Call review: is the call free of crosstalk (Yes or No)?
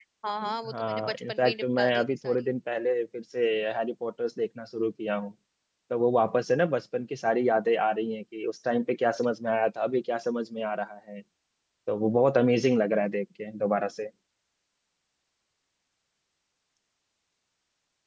No